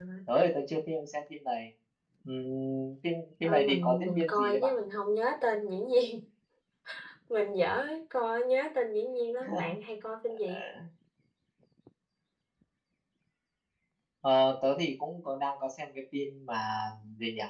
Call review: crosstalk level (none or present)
present